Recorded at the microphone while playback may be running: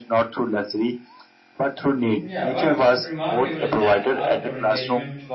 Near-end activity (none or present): present